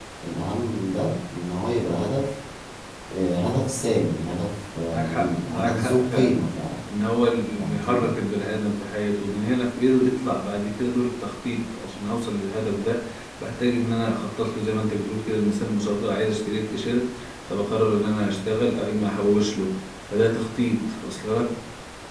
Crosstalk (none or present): present